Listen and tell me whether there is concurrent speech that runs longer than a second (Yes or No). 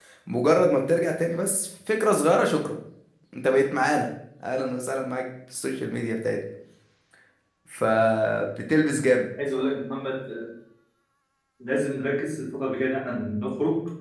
No